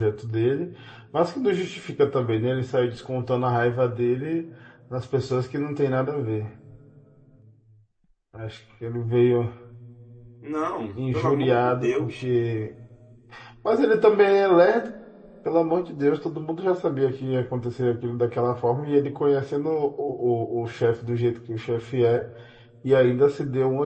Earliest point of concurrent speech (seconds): 11.0 s

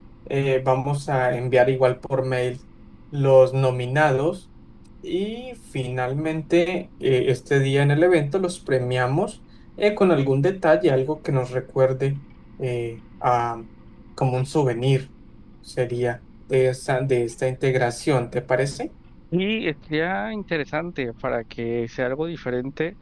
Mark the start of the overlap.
none

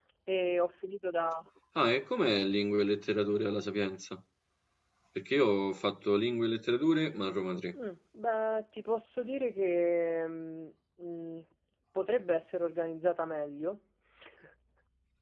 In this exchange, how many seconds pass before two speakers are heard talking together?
none

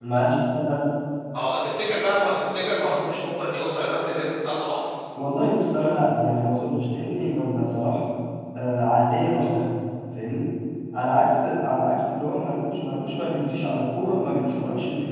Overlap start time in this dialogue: none

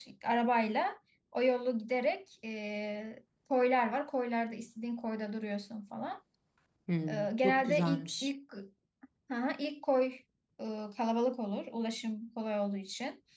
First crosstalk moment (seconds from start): 7.1 s

